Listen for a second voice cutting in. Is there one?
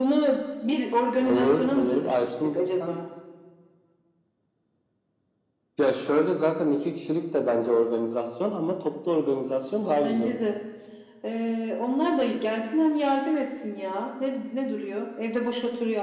Yes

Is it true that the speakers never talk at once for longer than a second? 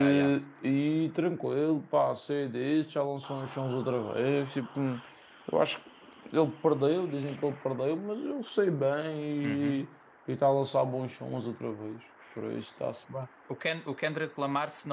Yes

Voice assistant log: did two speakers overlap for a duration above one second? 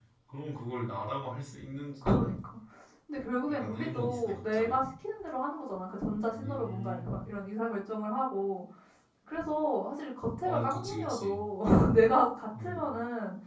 Yes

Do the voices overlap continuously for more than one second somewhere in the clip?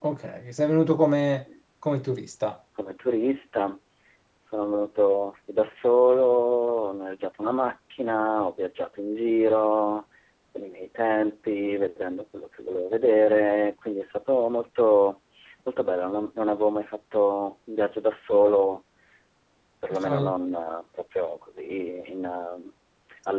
No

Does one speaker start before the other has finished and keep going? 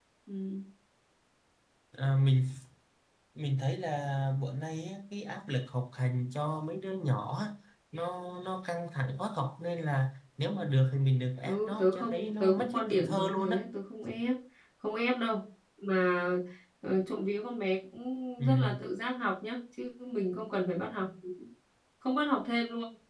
Yes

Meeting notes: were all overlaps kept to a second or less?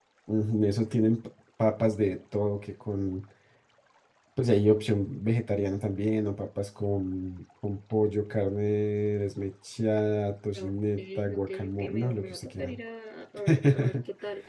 No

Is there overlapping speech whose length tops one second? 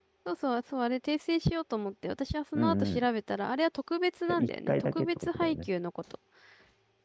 Yes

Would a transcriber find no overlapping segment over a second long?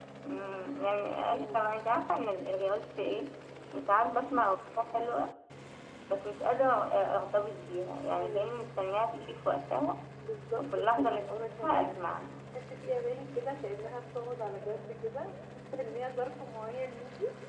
No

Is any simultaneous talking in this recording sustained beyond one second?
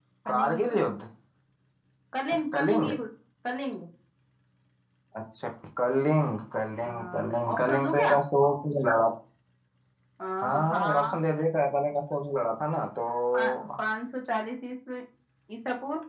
Yes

